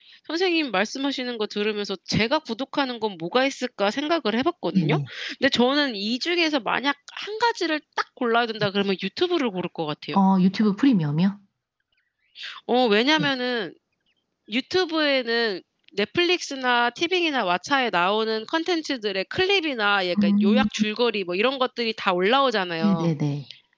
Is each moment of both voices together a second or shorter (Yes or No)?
Yes